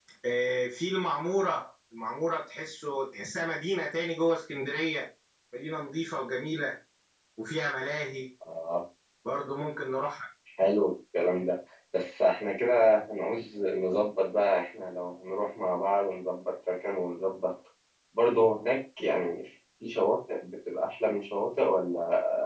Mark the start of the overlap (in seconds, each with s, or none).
none